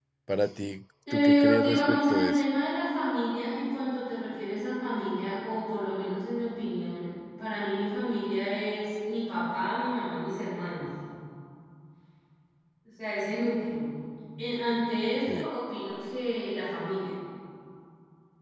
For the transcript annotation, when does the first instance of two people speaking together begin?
1.1 s

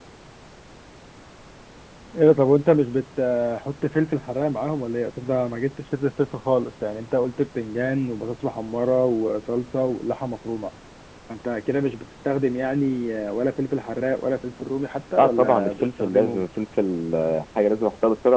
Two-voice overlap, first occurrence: 15.2 s

